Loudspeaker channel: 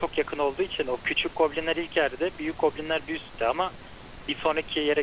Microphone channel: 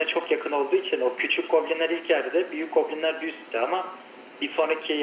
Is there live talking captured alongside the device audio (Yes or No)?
No